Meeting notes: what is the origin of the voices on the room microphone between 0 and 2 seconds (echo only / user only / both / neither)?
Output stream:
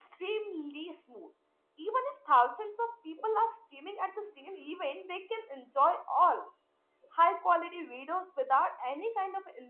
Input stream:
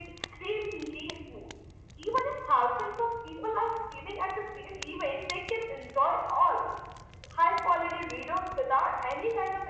echo only